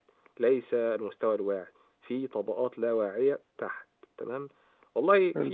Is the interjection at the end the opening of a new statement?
No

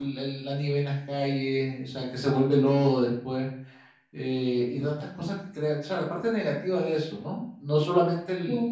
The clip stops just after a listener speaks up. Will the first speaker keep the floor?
Yes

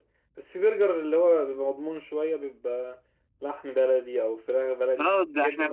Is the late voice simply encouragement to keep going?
No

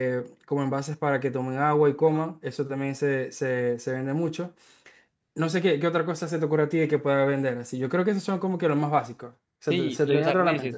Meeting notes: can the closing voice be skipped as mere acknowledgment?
No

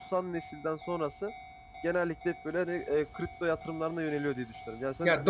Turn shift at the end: Yes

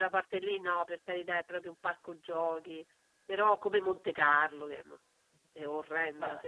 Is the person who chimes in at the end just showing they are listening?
Yes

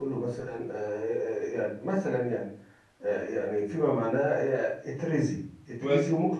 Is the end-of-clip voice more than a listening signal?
No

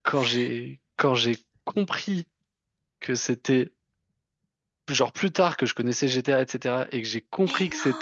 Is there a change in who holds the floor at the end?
No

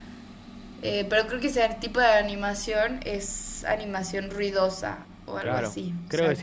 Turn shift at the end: Yes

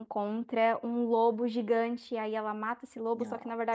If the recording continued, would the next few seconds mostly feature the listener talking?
No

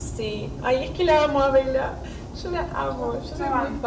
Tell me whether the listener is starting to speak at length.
Yes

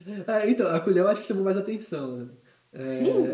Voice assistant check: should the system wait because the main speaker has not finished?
No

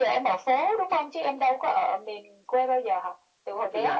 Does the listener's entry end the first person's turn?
Yes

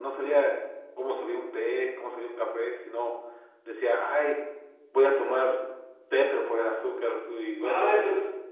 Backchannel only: No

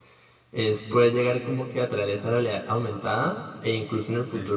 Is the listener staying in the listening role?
Yes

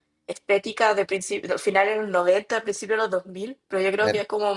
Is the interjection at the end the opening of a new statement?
No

